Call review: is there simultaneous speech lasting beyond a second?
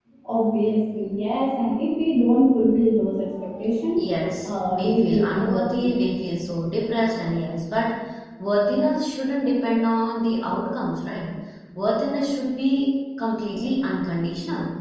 Yes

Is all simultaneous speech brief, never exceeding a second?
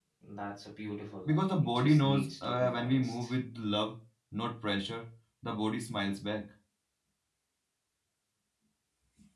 No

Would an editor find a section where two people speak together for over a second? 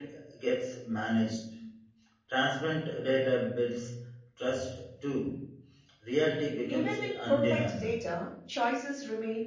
Yes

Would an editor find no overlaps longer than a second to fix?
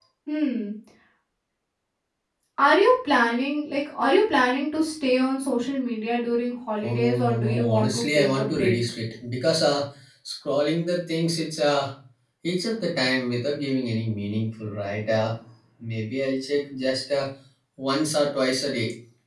No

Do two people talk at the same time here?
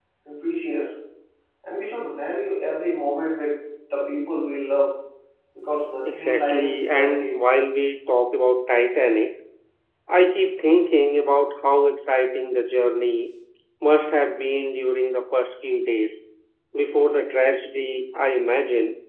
Yes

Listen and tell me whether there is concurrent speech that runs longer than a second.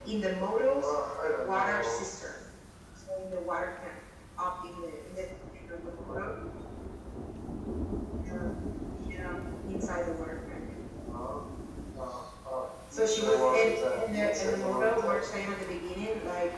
Yes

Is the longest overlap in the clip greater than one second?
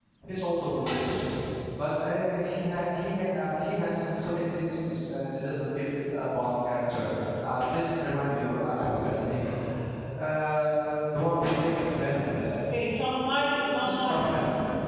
No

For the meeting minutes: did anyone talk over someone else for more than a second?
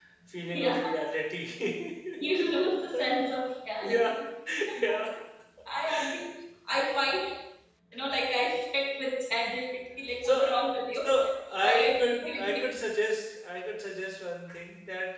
Yes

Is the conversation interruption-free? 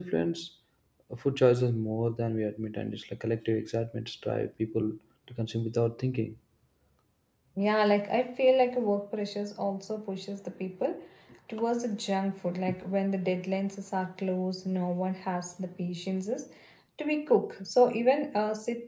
Yes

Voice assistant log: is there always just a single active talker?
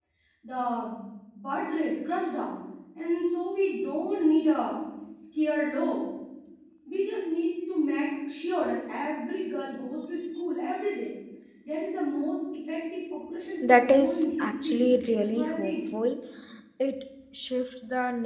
No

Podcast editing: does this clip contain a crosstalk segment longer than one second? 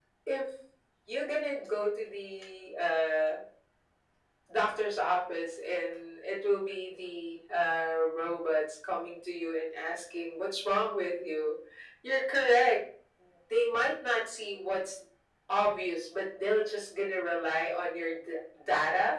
No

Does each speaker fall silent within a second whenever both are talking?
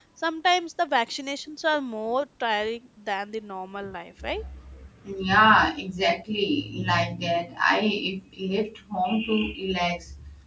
Yes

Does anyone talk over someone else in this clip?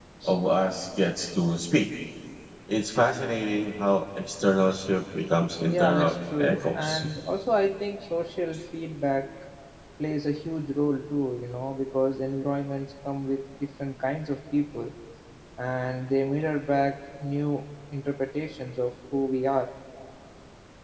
Yes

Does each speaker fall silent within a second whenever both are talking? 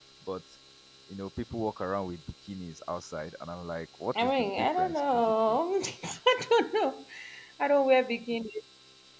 No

